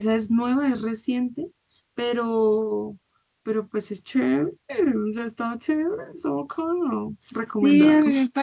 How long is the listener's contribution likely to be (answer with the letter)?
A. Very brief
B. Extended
B